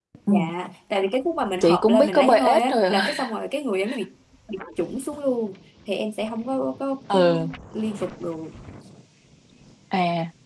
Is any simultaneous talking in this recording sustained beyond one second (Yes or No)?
Yes